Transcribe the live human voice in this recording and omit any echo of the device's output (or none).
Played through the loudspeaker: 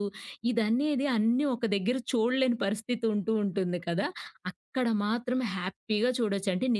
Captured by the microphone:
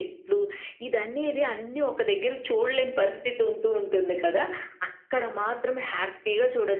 none